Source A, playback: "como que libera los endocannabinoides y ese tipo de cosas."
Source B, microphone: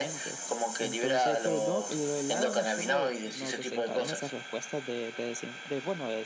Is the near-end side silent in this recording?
No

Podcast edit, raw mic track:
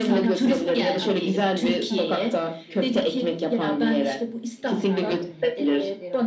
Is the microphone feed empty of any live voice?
No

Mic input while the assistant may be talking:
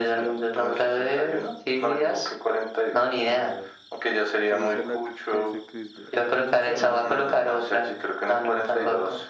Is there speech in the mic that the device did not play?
Yes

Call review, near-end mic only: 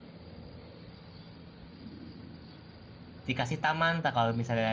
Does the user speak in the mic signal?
Yes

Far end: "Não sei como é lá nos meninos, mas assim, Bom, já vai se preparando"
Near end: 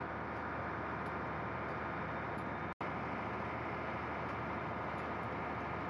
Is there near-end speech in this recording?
No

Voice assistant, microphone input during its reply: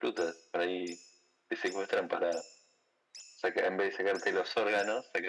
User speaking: No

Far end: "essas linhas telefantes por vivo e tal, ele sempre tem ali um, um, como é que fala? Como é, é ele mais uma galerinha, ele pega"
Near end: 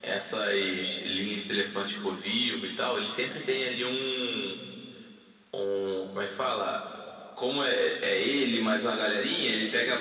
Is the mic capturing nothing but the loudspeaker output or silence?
Yes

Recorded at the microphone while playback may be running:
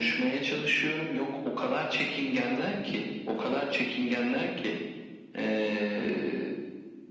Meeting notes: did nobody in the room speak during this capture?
Yes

